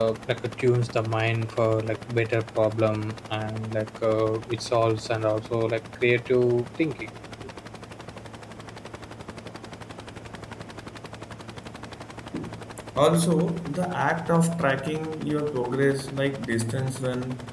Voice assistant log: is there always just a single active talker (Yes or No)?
Yes